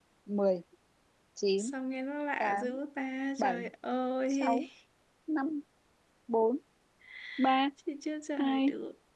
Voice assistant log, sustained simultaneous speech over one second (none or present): none